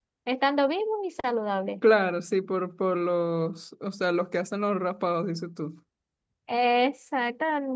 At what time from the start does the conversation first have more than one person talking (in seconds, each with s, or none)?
none